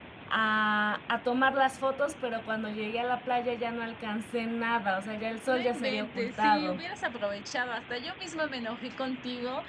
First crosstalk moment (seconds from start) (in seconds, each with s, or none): 5.5 s